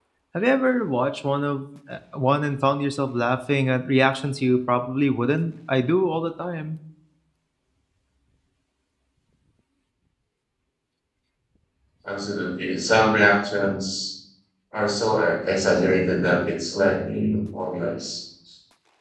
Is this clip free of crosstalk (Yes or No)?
Yes